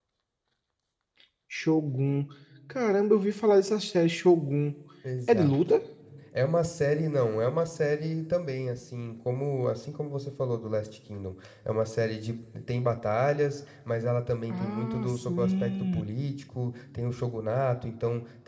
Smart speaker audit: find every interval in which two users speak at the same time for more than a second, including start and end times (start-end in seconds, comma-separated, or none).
14.5-16.0